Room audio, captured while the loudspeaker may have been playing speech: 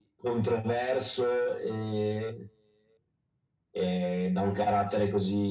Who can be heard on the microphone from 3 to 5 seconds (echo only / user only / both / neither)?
echo only